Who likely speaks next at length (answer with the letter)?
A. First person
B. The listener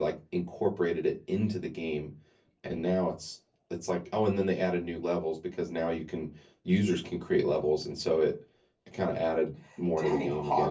B